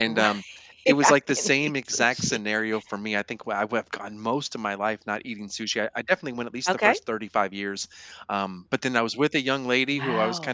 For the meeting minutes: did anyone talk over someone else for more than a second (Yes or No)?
Yes